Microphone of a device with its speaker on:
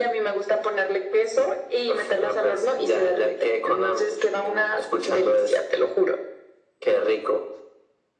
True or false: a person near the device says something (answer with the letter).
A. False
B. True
A